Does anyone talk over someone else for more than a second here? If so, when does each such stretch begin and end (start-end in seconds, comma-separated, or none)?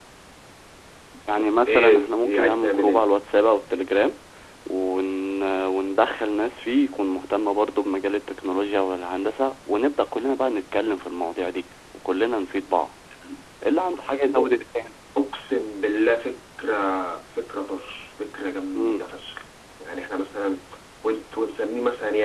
1.7-3.1